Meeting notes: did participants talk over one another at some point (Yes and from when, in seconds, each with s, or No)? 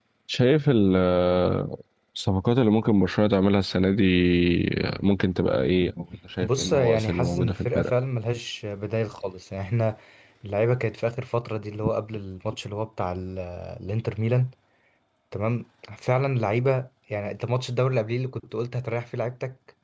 Yes, from 6.4 s